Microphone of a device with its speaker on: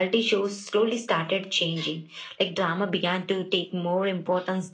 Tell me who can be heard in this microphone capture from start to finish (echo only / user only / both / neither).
echo only